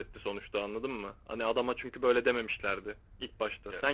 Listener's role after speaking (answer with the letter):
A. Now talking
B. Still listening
B